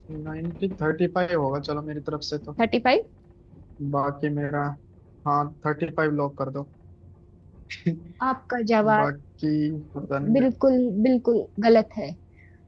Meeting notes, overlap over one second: none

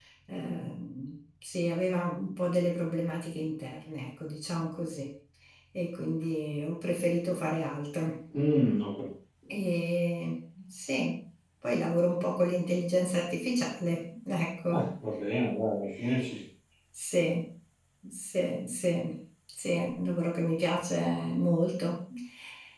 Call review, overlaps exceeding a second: none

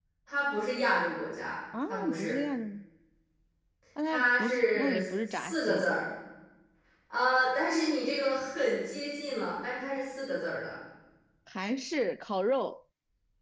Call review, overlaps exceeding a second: present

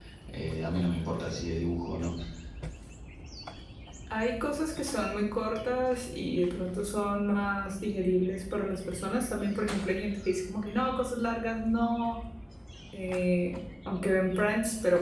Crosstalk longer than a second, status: none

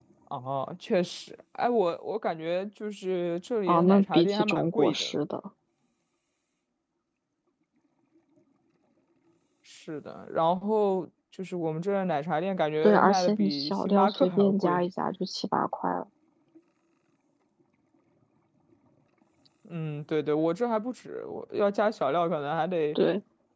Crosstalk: present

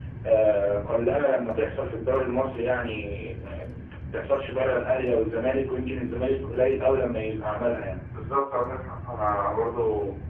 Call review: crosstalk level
none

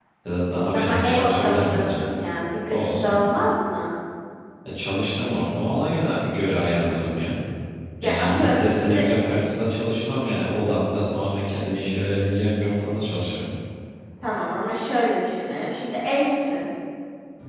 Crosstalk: present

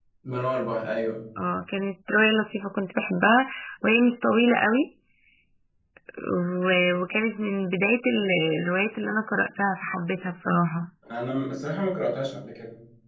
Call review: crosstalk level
none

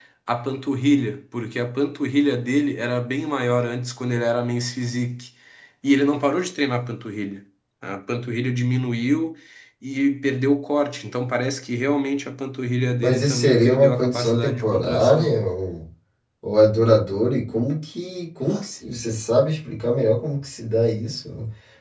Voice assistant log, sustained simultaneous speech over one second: present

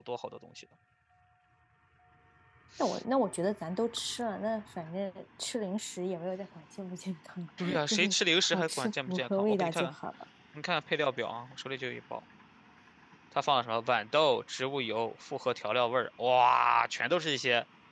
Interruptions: present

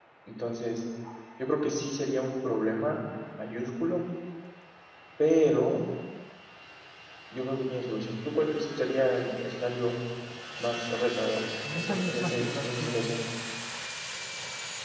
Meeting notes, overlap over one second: present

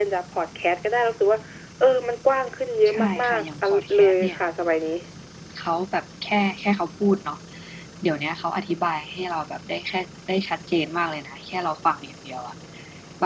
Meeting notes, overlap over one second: present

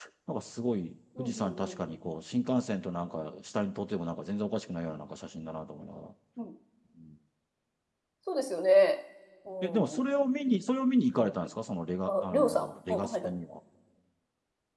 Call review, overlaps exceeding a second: present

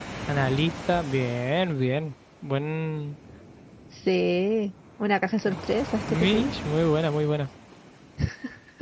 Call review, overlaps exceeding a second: none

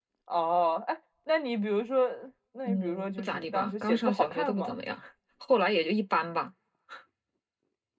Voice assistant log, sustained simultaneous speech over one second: present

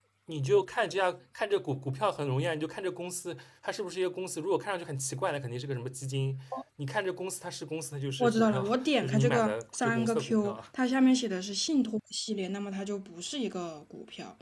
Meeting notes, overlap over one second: present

